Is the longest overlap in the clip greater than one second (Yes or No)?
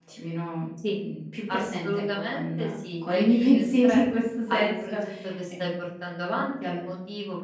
Yes